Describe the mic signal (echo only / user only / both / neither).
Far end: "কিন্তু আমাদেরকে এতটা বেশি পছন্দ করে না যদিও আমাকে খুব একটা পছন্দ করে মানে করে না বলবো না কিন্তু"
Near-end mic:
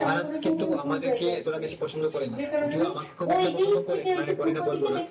both